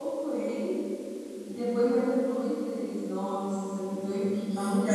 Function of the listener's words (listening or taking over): taking over